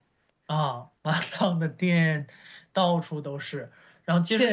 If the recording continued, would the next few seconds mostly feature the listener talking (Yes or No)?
No